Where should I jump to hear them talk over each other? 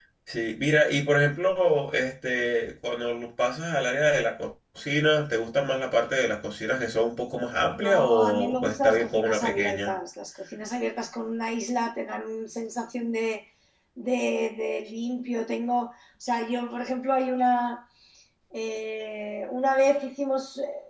8 s

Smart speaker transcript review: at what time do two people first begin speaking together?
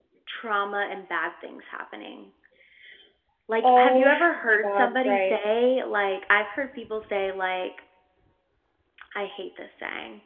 4 s

